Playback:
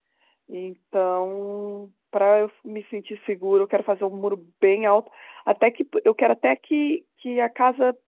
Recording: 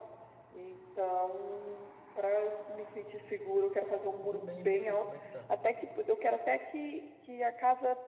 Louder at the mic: echo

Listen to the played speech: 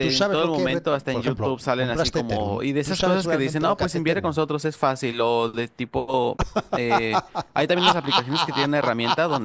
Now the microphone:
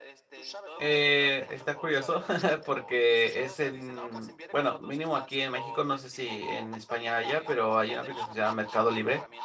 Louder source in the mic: user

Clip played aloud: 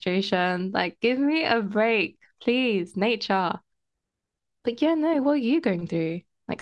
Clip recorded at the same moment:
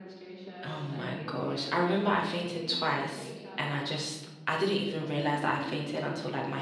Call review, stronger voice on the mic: user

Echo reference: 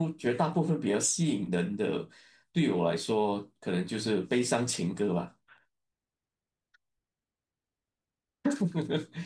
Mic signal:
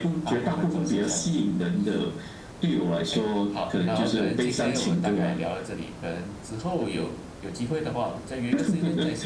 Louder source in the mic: echo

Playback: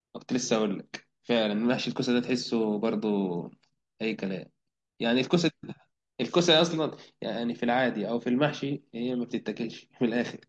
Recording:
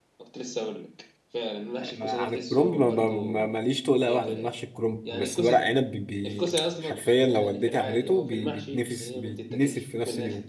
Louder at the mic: user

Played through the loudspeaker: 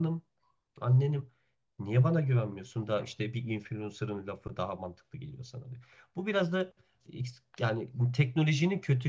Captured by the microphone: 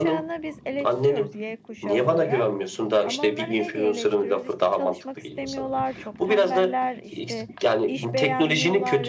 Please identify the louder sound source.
echo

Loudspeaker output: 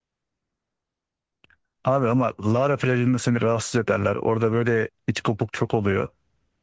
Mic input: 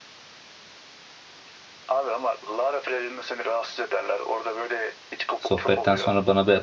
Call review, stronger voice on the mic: user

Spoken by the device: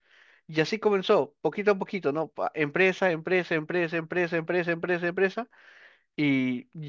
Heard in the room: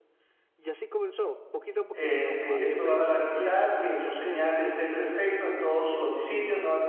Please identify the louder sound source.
user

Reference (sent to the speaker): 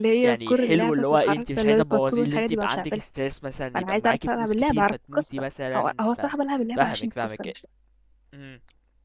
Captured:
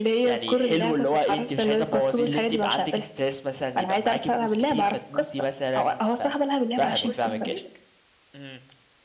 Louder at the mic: echo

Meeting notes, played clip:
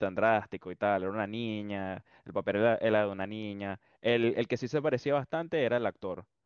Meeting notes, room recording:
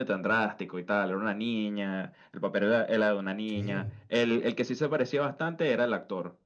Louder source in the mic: echo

